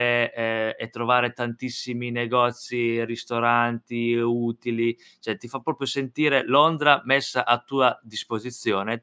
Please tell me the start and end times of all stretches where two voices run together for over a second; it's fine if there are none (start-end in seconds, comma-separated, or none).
none